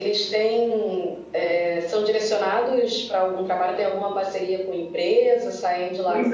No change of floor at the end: No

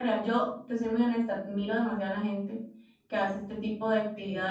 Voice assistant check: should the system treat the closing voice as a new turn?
No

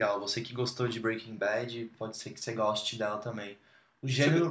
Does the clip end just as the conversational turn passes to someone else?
No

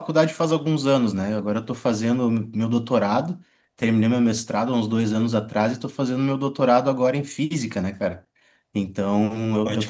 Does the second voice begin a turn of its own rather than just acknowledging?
No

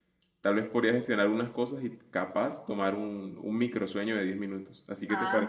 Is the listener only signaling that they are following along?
No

